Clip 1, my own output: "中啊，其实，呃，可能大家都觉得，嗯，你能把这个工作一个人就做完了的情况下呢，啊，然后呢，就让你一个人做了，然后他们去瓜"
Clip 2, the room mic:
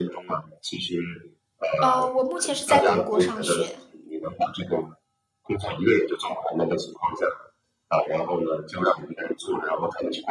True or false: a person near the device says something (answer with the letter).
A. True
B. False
A